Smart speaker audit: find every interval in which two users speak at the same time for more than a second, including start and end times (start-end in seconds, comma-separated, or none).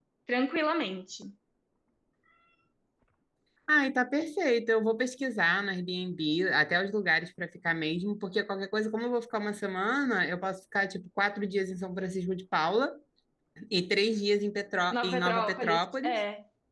14.9-16.2